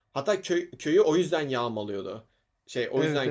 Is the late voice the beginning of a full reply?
Yes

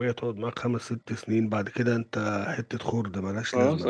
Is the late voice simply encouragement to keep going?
No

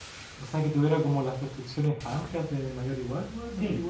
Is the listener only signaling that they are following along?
No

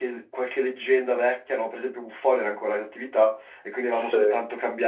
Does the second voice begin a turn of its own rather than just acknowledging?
No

